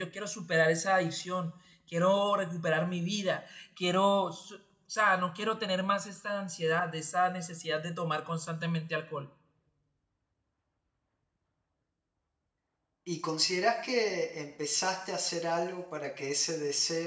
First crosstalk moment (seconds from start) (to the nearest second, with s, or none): none